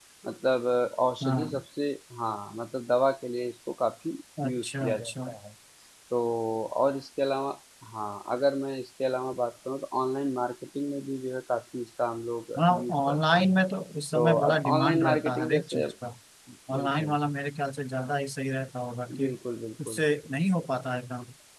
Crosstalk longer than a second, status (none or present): present